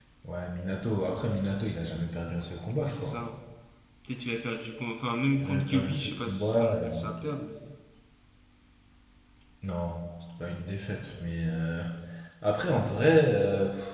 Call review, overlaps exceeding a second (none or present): present